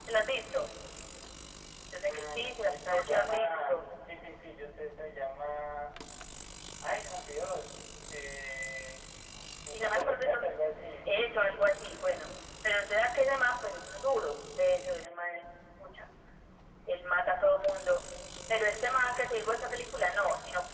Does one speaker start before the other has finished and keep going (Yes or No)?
Yes